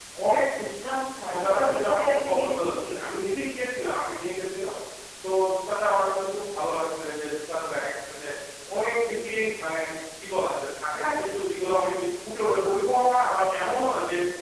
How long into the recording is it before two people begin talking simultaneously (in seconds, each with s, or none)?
1.3 s